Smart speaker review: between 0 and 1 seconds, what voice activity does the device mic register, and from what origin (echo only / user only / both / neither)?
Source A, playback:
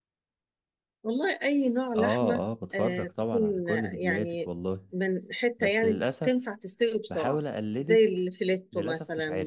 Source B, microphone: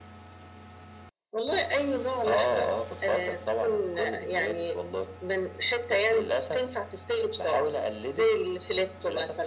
neither